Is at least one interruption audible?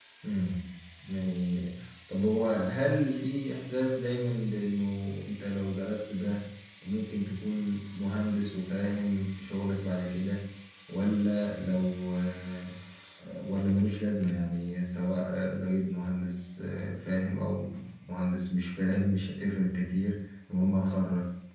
No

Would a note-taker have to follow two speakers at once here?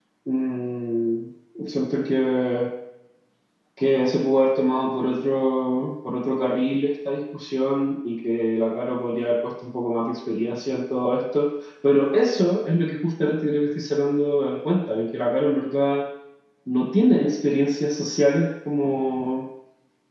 No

